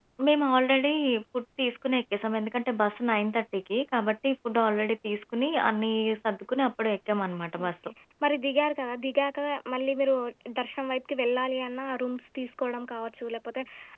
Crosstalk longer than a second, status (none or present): none